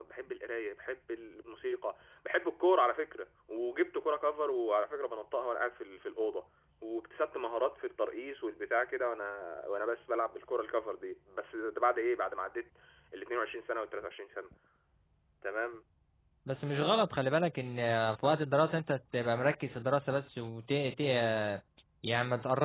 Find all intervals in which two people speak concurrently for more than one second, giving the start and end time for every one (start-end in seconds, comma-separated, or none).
none